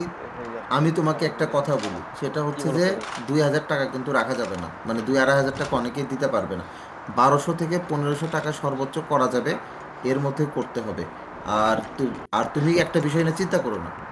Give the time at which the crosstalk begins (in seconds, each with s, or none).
1.1 s